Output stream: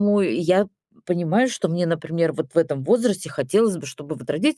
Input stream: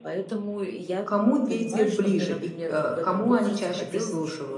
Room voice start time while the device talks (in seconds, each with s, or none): 1.0 s